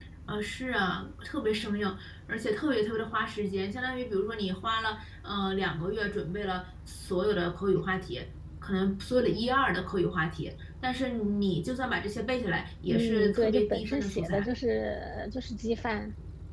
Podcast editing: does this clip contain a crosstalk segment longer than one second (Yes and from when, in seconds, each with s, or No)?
Yes, from 12.8 s